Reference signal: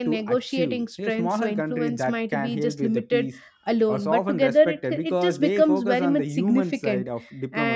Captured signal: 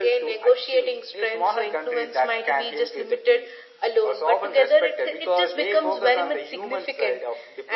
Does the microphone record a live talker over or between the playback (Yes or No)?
No